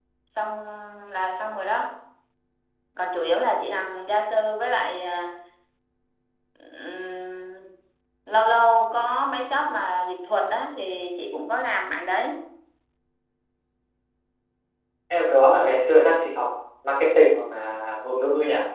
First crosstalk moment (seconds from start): none

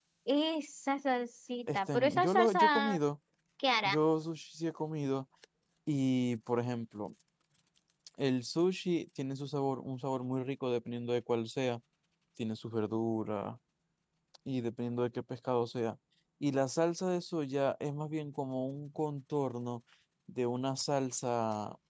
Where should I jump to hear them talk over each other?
1.7 s

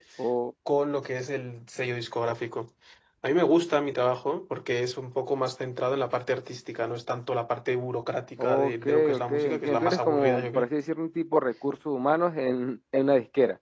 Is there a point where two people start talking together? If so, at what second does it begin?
8.4 s

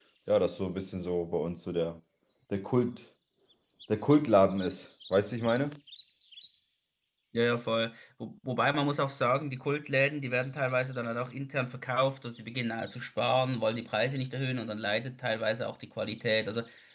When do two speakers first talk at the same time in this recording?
none

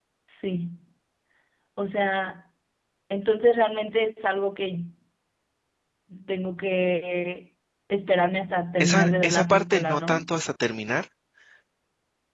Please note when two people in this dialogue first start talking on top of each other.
8.8 s

